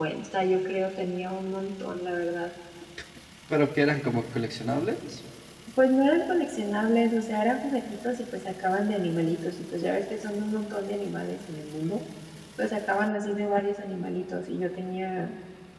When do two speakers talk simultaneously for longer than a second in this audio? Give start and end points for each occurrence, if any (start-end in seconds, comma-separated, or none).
none